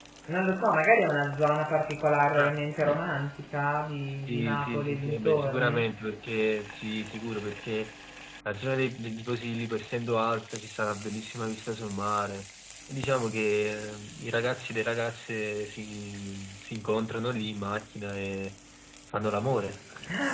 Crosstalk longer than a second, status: present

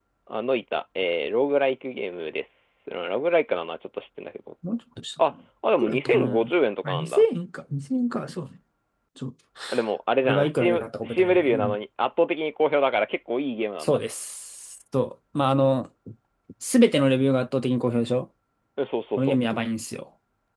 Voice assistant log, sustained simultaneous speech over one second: present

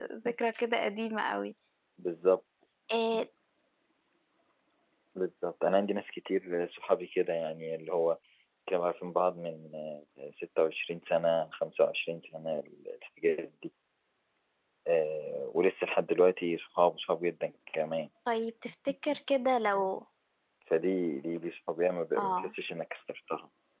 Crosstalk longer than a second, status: none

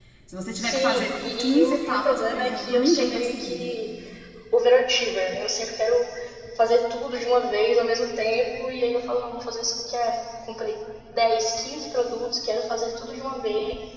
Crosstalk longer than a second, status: present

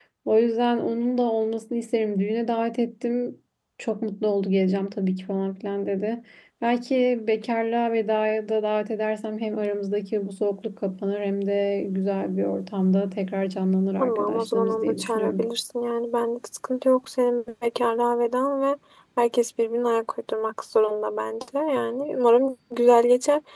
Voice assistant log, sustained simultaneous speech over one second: present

